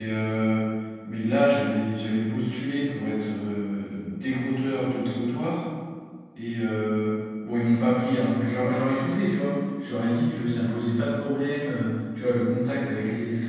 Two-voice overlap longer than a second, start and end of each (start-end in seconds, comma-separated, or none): none